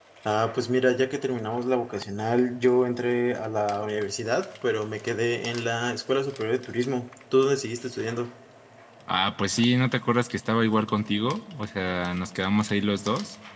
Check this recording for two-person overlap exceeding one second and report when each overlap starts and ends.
none

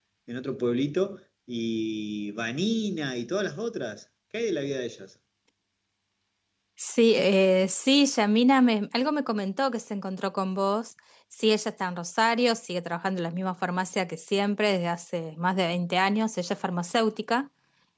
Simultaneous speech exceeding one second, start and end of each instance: none

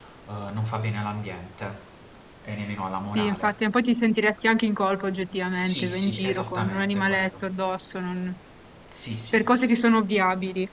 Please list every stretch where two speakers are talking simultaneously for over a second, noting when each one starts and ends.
5.6-7.5

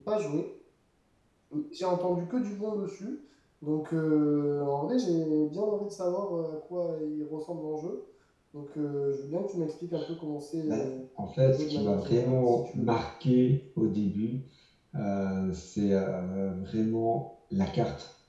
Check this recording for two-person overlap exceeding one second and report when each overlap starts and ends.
11.4-13.0

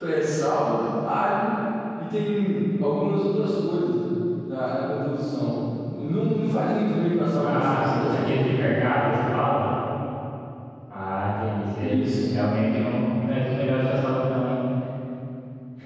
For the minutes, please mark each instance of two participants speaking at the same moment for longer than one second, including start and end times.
7.3-8.6

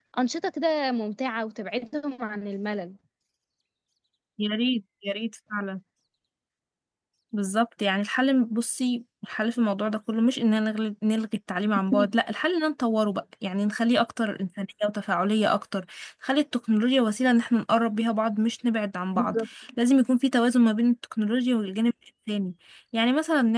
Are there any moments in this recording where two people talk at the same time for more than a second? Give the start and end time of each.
none

